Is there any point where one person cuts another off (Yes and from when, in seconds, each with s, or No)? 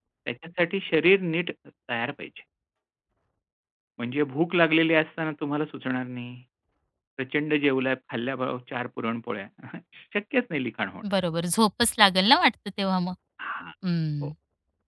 No